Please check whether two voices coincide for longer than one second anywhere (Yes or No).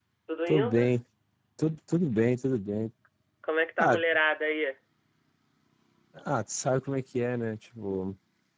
No